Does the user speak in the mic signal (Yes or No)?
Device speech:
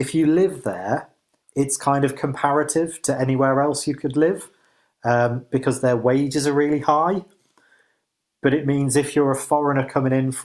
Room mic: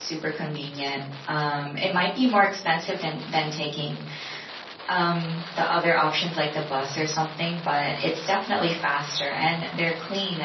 Yes